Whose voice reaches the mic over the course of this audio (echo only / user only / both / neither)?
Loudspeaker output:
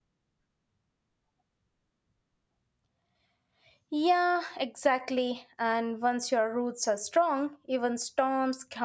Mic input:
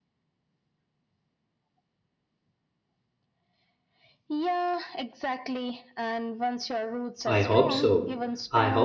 both